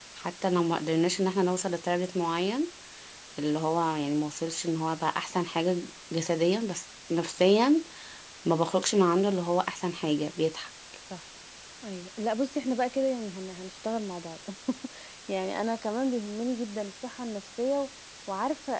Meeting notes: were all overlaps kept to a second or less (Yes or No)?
Yes